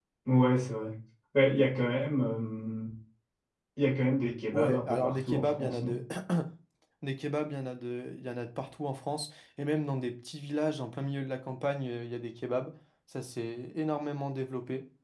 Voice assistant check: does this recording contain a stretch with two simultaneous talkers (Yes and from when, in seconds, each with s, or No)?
Yes, from 4.5 s